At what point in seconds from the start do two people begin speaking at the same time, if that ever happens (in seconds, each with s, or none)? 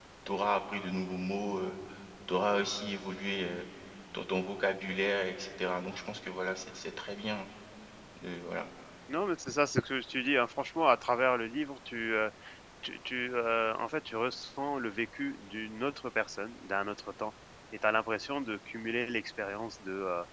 none